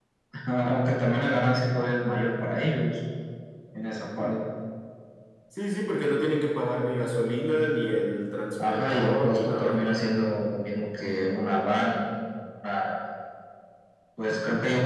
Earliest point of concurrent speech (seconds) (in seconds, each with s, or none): 8.6 s